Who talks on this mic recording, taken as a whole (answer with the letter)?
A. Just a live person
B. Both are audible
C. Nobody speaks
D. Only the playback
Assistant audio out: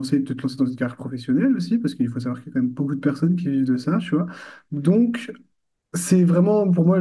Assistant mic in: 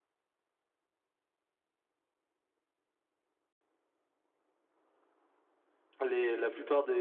A